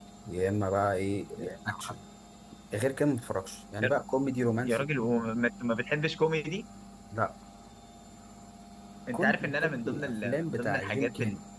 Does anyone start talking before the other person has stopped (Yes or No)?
Yes